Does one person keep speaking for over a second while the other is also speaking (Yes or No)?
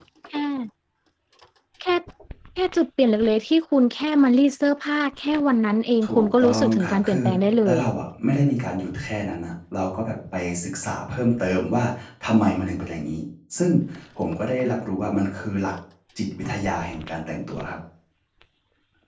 Yes